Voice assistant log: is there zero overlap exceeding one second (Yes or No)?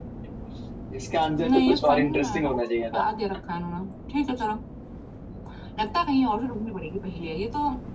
No